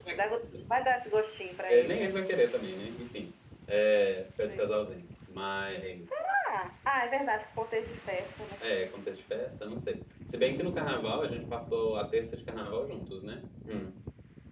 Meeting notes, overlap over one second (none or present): none